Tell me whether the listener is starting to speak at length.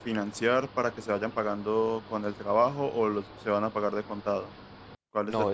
Yes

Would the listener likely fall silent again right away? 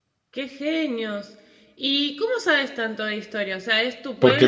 No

